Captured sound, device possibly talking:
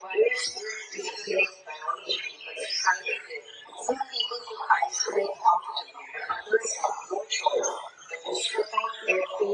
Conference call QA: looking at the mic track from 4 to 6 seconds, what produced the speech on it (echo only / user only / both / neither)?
echo only